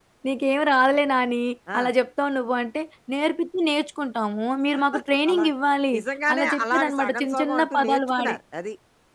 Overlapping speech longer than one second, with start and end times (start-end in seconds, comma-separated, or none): 6.3-8.4